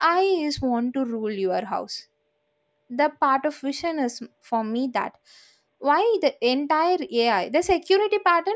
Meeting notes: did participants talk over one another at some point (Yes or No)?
No